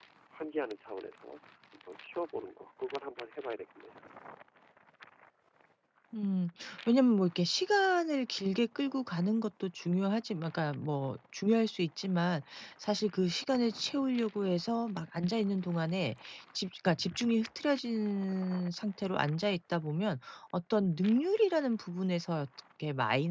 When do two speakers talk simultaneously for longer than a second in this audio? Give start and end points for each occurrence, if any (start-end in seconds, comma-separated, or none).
none